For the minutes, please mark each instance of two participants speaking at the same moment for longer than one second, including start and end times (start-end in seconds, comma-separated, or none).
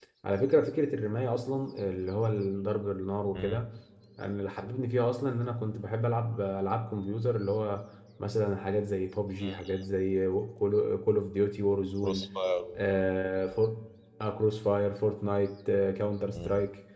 none